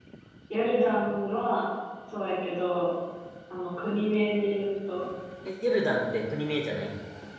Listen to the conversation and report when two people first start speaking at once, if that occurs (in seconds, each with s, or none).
none